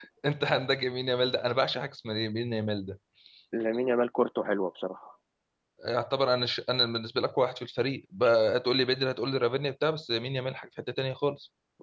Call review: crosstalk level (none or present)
none